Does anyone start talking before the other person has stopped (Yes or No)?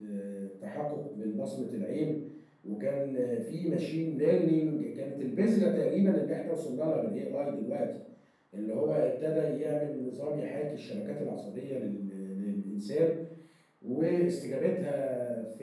No